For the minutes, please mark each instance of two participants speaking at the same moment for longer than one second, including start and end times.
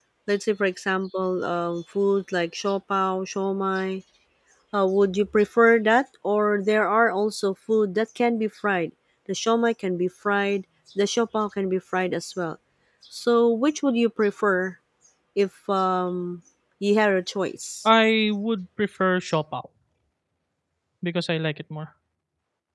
none

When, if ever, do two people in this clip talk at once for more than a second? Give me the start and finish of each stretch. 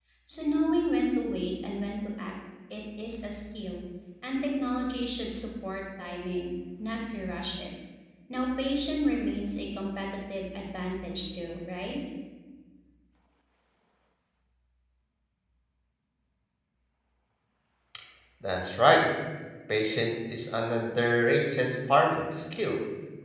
none

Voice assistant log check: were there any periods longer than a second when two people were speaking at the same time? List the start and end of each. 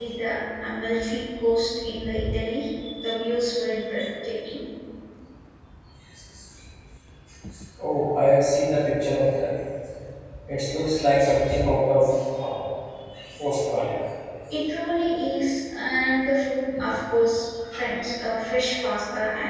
none

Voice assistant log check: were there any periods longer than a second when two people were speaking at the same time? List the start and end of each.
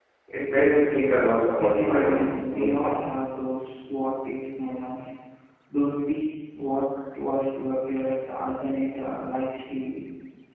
1.6-3.0

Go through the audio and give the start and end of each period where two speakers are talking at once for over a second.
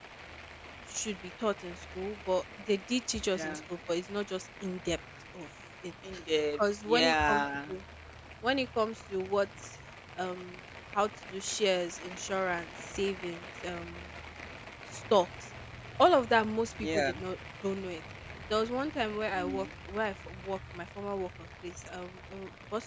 6.5-7.7

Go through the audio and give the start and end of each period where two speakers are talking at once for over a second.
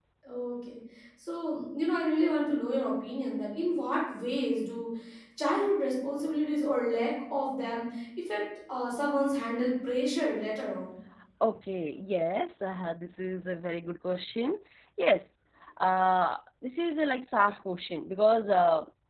none

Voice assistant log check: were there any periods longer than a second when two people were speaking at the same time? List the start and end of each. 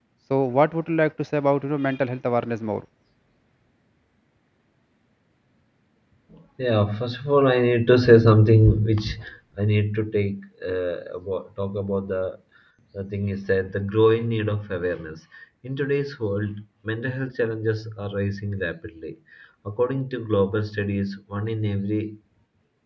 none

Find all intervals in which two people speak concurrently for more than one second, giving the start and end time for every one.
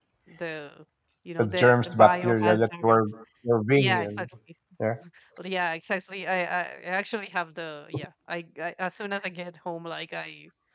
1.4-3.0

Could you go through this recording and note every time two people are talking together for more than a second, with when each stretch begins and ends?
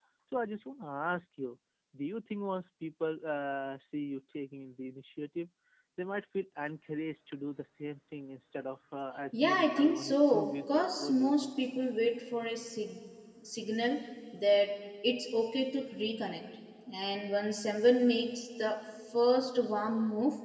9.4-11.5

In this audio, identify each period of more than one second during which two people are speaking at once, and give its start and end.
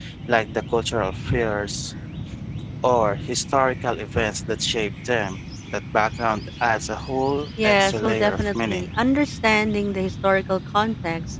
7.6-8.9

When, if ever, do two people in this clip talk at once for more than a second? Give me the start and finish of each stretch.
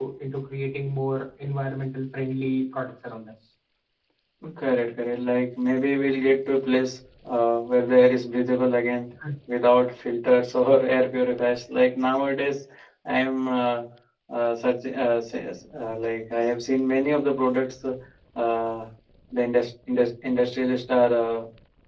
none

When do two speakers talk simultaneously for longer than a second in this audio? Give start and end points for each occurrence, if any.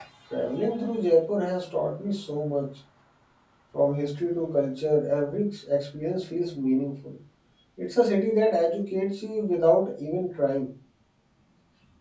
none

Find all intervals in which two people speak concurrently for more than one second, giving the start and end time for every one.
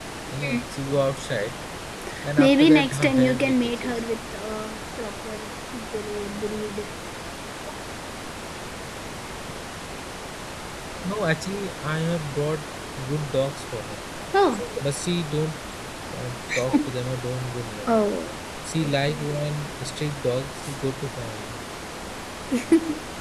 2.4-4.0

